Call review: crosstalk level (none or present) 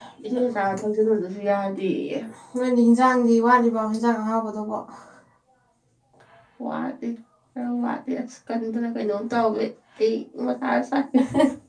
none